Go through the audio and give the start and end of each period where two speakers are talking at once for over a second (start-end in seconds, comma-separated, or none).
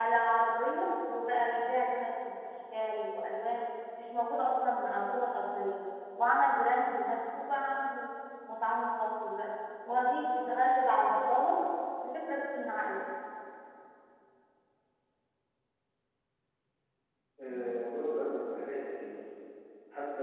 none